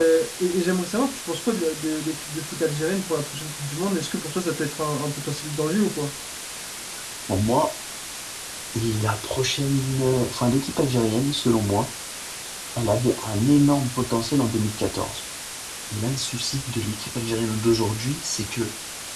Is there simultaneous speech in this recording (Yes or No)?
No